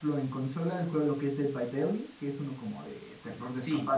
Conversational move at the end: listening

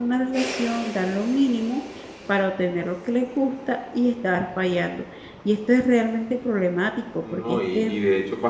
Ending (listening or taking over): taking over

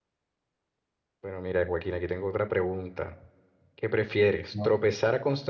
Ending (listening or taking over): listening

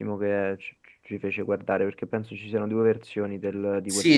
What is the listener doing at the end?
taking over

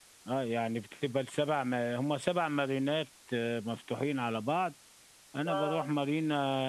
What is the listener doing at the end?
listening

